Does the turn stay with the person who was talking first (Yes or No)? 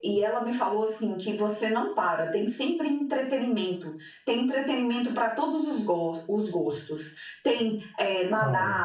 Yes